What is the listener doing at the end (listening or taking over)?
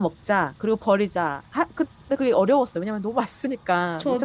taking over